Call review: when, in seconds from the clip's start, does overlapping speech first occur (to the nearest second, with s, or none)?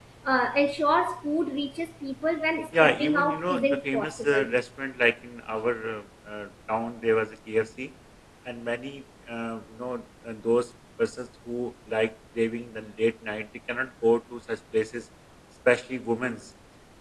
3 s